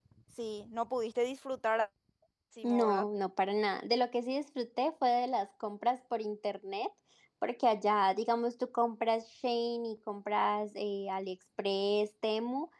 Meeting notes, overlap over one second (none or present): none